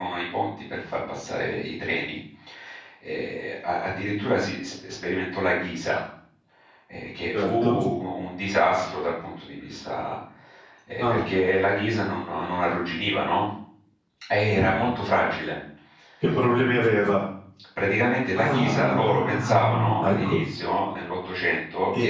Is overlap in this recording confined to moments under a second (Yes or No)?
No